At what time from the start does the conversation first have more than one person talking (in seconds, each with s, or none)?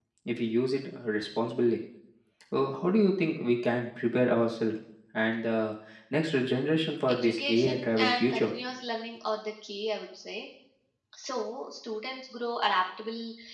7.1 s